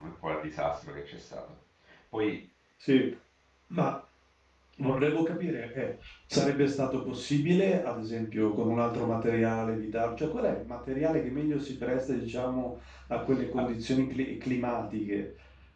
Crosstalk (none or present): none